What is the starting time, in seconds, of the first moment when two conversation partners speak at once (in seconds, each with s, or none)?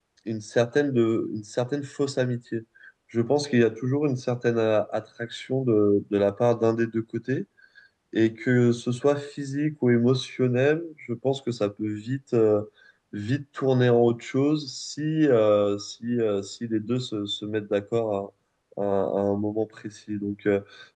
none